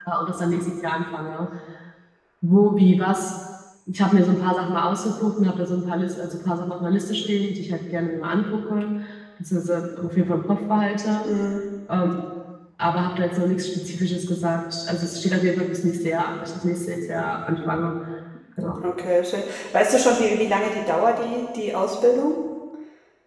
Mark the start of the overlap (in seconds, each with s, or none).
none